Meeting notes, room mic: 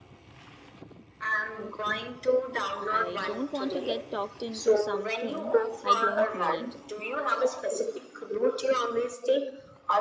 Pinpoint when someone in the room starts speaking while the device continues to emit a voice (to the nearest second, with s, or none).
3 s